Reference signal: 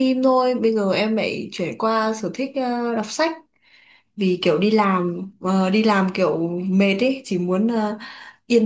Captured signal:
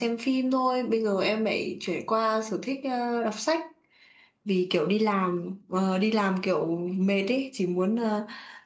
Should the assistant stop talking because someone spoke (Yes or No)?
No